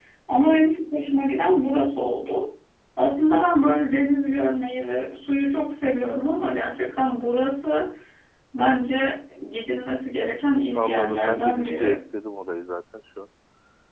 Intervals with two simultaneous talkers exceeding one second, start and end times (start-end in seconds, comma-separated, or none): 10.7-12.0